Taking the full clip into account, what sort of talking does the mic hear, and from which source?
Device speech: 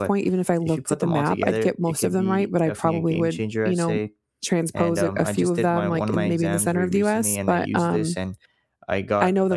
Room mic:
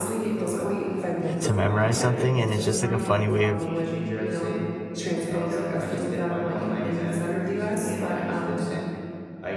both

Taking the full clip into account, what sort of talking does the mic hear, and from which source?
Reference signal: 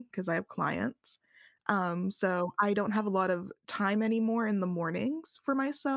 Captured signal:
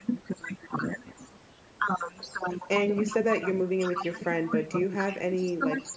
both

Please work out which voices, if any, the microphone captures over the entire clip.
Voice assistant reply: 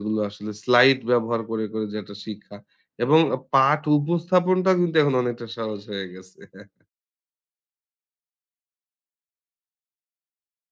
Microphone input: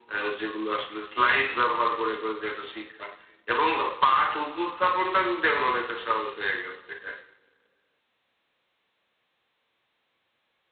echo only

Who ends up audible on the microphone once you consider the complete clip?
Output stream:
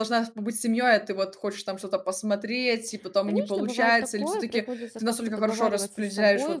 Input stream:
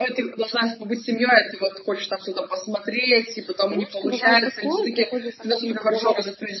echo only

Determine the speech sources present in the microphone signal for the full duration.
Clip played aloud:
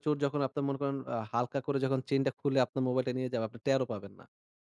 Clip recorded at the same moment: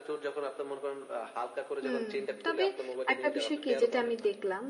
both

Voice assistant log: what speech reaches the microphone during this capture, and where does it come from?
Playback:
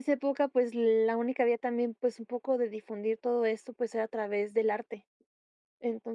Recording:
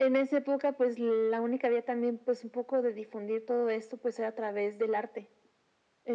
echo only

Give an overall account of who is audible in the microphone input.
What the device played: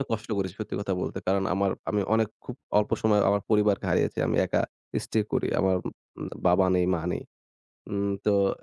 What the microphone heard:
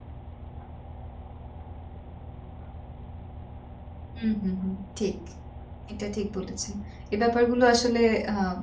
user only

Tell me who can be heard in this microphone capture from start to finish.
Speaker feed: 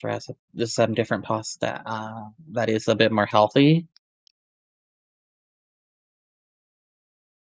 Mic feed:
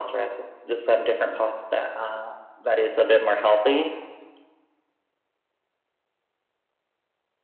echo only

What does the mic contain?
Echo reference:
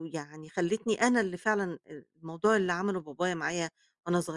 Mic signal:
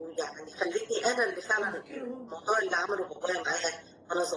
both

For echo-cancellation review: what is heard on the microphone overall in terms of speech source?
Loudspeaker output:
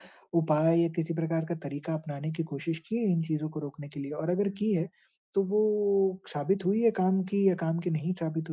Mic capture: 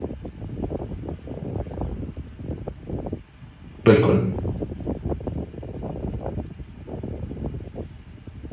user only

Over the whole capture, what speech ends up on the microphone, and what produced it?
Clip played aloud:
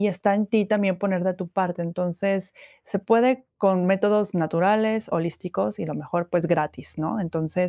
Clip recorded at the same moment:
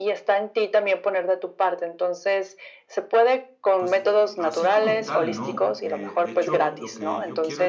both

